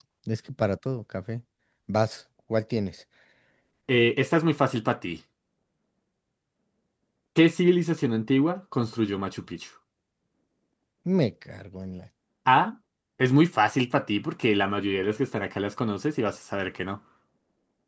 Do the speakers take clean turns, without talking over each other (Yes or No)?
Yes